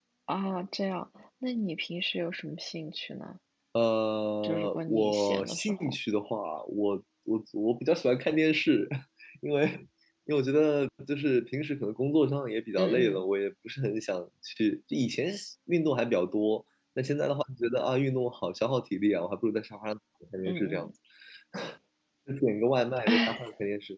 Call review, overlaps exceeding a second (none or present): present